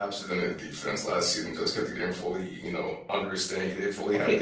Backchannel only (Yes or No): No